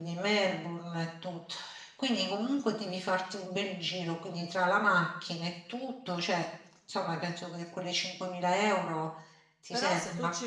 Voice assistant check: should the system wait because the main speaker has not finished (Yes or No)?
No